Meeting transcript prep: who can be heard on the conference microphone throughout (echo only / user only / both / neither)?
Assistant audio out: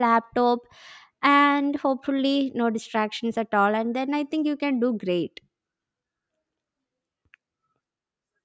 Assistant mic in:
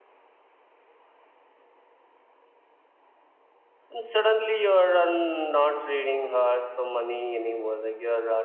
user only